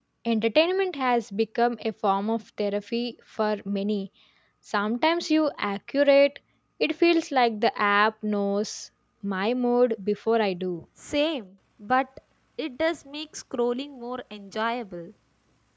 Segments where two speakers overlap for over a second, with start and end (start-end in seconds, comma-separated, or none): none